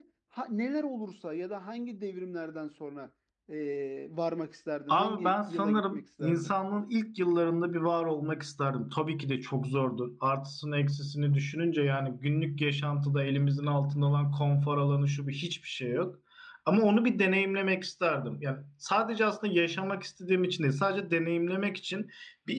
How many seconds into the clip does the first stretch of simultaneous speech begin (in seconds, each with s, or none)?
4.9 s